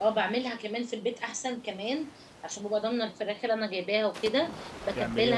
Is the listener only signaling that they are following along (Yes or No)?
Yes